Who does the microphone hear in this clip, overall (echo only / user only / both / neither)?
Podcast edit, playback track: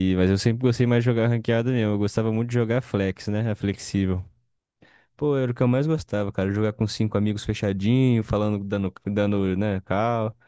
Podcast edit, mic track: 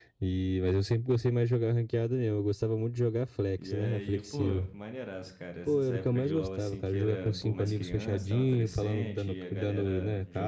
both